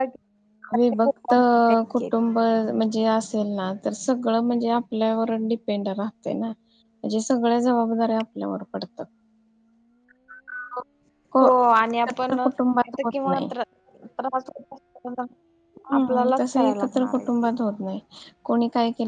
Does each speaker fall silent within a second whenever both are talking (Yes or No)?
No